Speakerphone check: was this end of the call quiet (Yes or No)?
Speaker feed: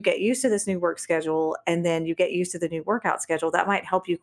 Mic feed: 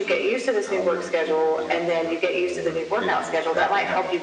No